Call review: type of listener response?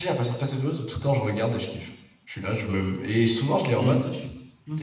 taking over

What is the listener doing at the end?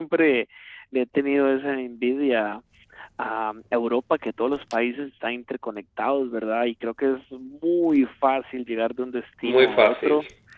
listening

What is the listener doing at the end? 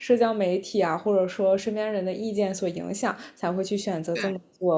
listening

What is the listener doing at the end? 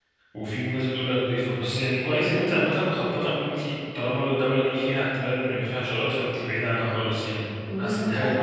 taking over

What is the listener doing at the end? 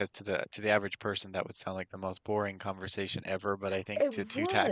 listening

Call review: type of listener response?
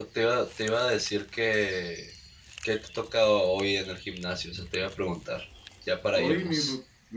taking over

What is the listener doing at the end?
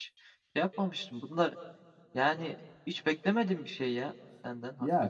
taking over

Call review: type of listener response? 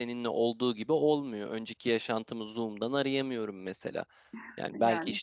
listening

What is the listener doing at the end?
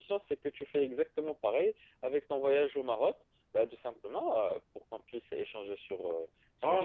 taking over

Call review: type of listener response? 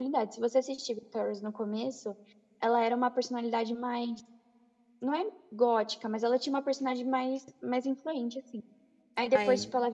listening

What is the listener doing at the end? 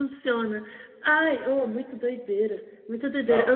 listening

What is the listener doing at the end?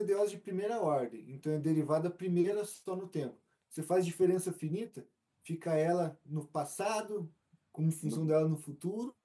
listening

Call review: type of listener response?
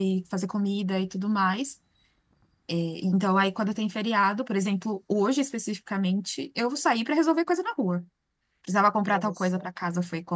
listening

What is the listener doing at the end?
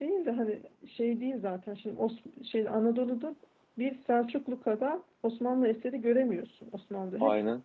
listening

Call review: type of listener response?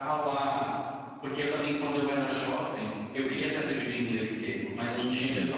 listening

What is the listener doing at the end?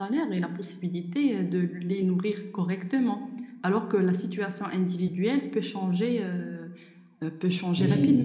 taking over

